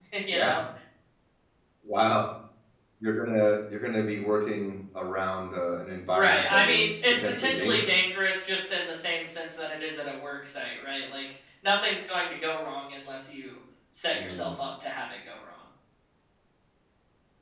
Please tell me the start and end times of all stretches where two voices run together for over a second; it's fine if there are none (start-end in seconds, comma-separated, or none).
6.1-8.1